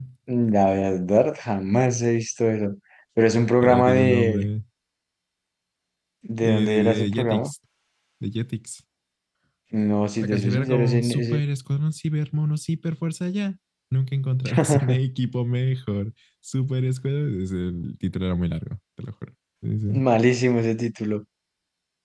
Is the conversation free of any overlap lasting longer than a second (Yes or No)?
No